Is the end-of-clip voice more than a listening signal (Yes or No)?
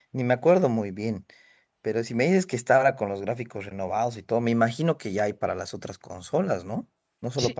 Yes